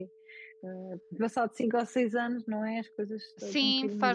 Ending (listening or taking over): taking over